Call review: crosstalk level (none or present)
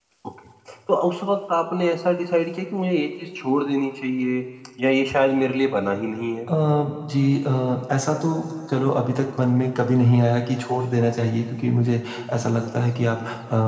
none